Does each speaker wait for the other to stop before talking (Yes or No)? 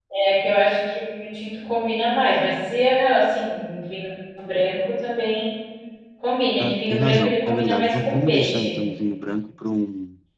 No